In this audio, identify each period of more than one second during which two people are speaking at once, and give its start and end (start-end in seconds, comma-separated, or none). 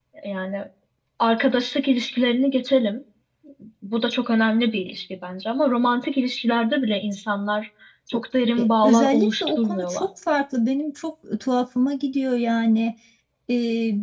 8.6-10.1